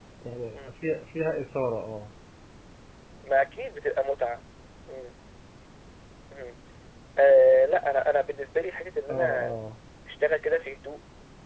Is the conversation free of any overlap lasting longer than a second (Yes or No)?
Yes